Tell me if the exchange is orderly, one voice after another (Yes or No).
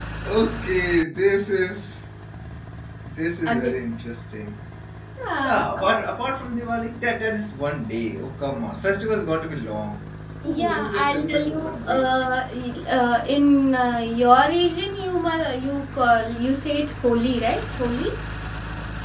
No